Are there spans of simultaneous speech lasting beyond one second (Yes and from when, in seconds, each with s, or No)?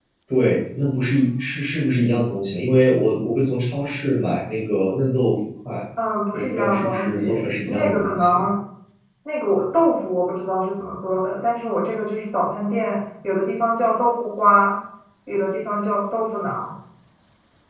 Yes, from 6.3 s